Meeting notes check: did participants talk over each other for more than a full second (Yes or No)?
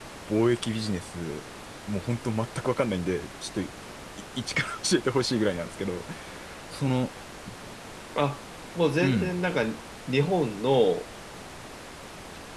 No